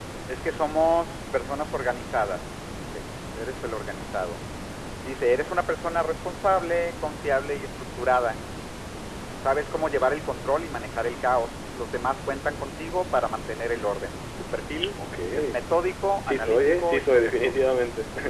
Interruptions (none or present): present